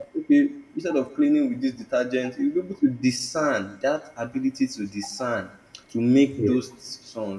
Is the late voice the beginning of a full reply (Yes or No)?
No